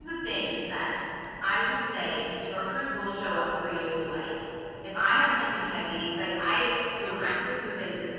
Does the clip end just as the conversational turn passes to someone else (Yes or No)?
No